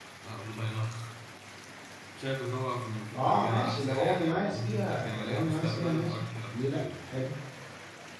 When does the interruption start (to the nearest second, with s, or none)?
3 s